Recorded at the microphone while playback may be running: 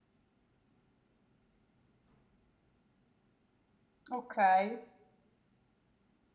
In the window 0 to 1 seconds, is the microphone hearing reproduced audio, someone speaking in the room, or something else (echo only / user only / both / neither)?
neither